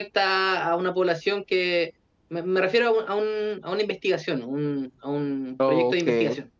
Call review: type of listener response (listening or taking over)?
listening